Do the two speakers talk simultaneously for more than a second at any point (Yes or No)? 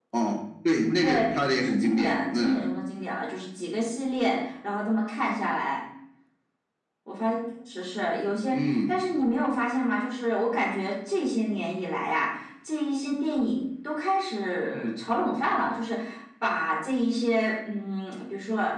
Yes